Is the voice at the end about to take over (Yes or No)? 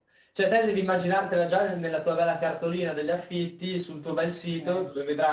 No